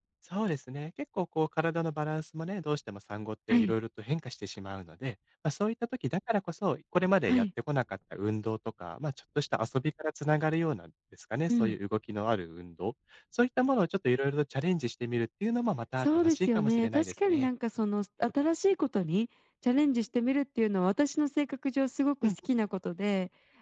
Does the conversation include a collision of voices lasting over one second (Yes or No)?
Yes